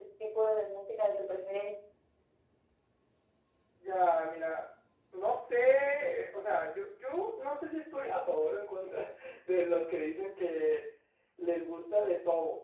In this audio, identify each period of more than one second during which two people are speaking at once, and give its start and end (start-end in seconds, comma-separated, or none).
none